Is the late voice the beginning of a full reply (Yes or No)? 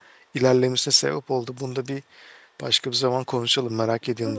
Yes